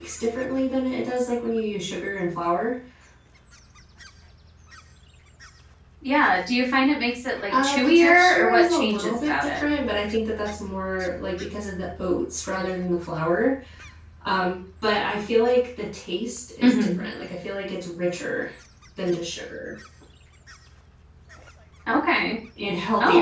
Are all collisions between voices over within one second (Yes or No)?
No